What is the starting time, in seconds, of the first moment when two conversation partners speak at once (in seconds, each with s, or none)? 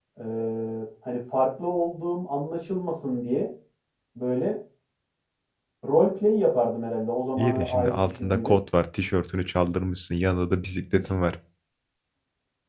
7.4 s